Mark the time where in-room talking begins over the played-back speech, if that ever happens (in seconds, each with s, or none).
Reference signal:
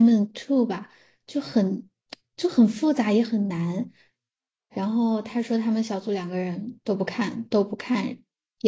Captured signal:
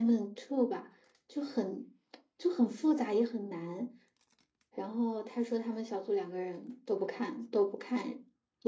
none